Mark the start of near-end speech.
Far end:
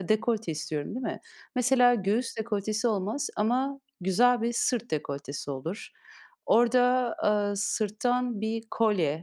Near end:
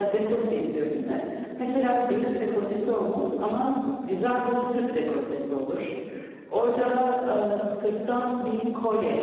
none

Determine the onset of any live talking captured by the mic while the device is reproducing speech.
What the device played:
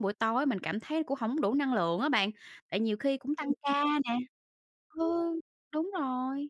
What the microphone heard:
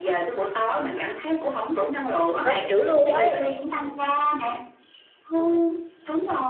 2 s

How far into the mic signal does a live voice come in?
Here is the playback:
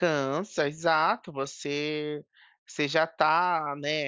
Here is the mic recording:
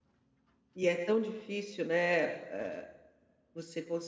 1 s

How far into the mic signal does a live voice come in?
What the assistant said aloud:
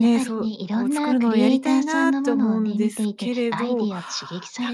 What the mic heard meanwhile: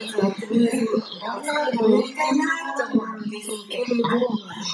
none

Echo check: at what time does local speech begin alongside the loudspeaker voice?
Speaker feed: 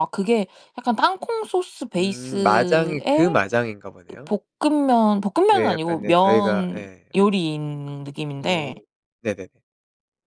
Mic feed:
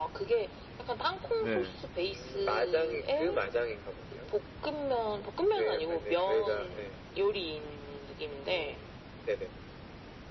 1 s

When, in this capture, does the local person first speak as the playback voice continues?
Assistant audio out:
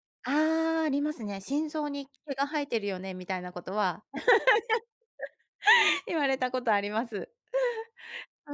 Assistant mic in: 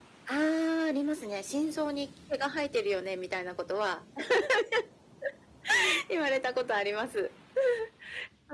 none

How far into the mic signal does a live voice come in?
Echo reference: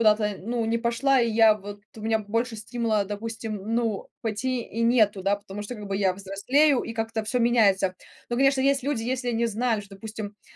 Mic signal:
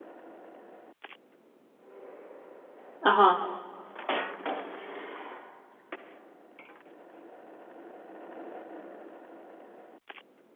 3 s

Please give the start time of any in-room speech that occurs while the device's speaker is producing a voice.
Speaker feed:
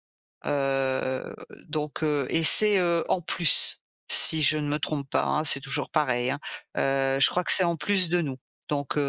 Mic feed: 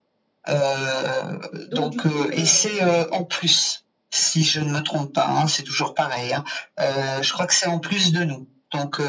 2 s

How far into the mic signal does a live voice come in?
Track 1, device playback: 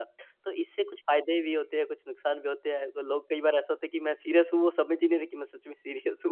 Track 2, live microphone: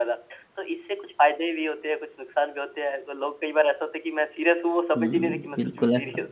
5 s

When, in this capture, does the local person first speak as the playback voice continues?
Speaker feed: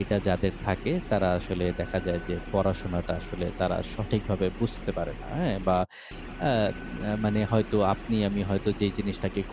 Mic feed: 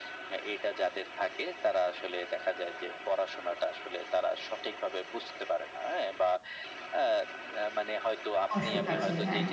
8 s

